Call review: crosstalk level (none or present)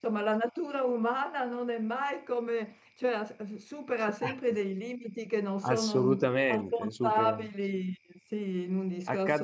present